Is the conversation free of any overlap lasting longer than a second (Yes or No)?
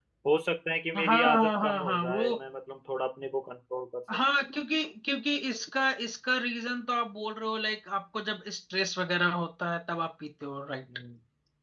No